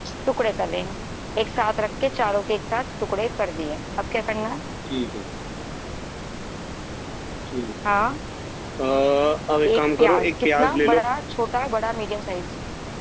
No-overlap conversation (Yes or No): No